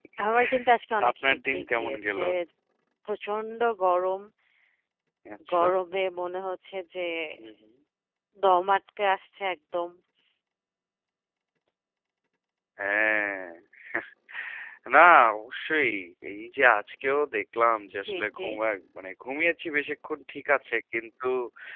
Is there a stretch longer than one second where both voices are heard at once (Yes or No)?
Yes